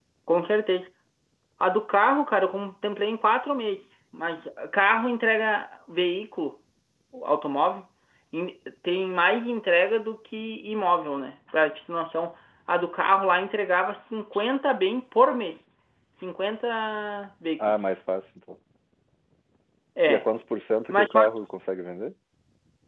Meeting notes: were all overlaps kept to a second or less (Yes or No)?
Yes